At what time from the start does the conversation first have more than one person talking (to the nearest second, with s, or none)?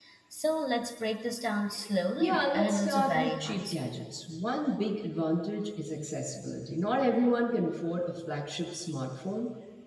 2 s